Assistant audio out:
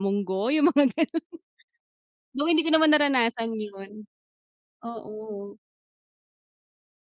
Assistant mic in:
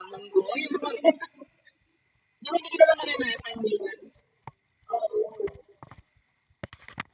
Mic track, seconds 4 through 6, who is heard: echo only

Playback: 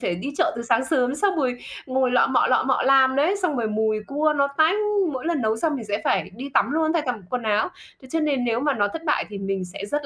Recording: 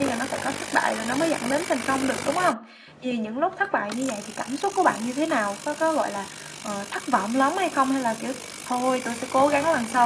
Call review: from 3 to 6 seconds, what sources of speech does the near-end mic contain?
user only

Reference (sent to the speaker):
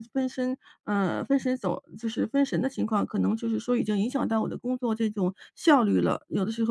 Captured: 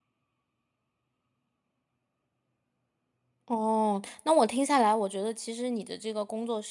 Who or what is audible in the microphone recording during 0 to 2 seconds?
neither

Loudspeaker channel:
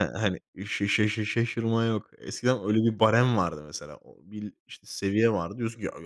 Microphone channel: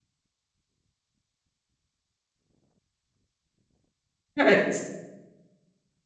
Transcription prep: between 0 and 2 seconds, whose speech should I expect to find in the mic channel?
neither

